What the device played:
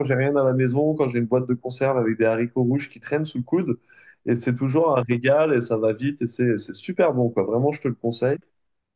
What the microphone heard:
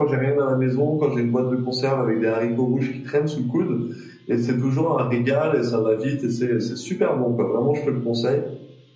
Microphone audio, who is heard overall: echo only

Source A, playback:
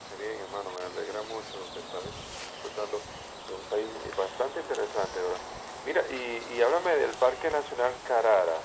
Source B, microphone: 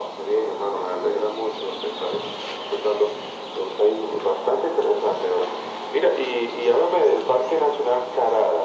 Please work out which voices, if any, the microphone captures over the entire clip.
echo only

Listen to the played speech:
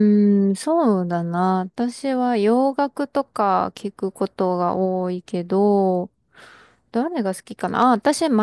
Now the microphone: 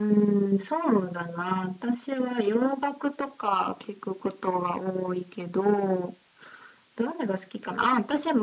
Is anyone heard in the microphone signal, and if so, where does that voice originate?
echo only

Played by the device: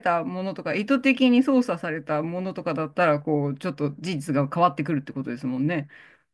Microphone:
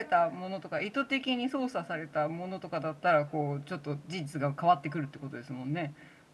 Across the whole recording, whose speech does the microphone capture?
echo only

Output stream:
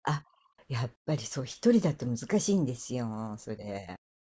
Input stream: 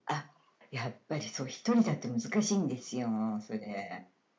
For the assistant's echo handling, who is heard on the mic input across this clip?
echo only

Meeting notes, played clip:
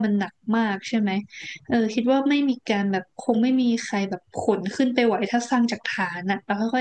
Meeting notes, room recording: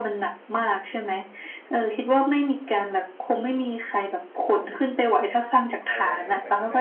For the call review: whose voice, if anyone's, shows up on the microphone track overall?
both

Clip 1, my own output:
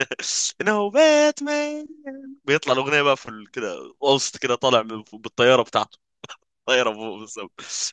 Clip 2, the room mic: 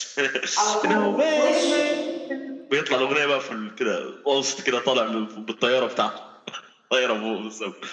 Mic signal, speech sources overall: both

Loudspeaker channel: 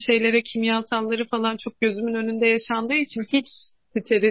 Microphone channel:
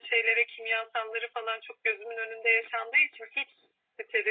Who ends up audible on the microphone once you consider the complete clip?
echo only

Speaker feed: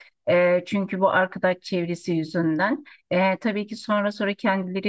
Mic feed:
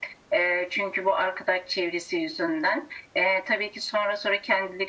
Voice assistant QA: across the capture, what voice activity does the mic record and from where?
echo only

